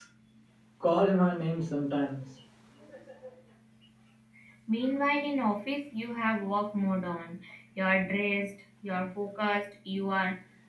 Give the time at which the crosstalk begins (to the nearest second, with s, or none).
none